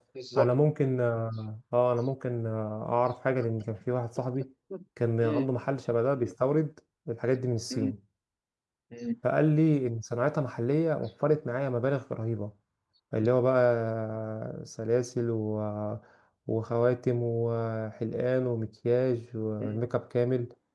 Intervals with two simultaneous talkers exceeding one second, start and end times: none

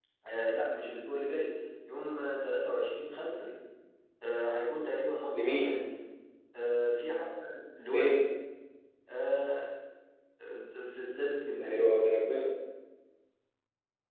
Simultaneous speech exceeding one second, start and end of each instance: none

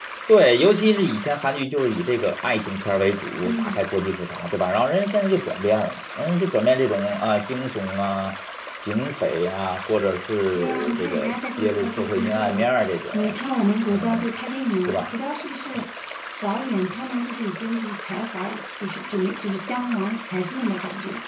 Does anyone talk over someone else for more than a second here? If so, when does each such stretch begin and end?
10.6-12.7

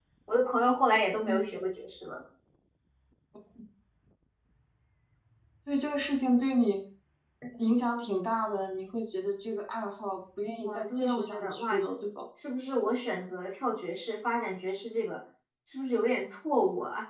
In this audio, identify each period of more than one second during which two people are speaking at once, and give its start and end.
10.6-11.8

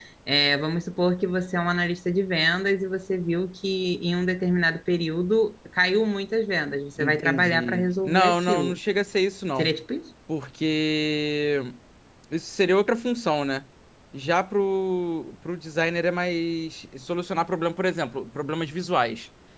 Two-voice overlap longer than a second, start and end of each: 7.0-8.8

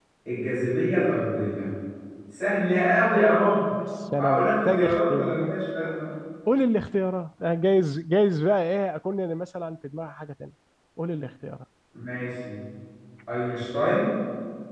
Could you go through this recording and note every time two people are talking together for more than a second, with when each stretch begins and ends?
4.2-5.5

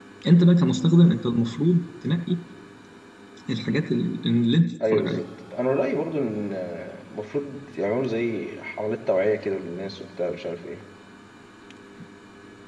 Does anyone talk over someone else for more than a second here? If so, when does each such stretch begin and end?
none

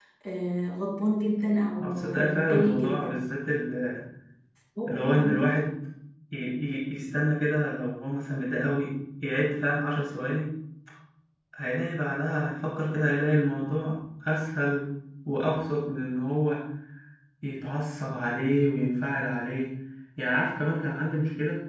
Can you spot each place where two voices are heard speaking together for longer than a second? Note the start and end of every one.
1.8-3.2

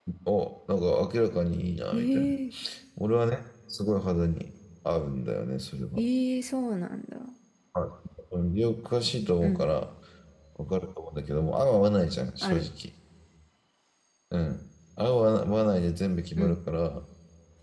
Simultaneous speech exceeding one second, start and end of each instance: none

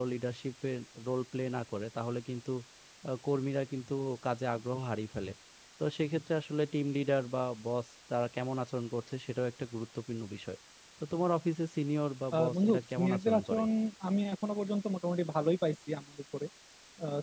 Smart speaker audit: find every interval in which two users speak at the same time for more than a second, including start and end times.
12.4-13.6

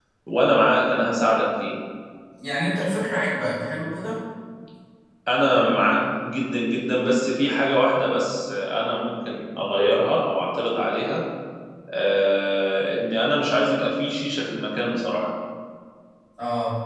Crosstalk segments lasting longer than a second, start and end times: none

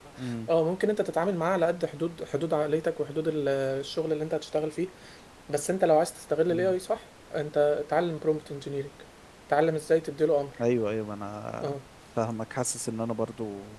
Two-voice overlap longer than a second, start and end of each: none

